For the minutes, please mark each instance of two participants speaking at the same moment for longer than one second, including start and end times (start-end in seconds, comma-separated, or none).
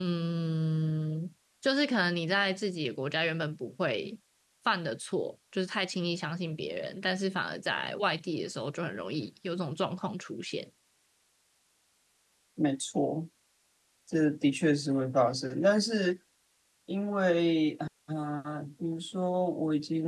none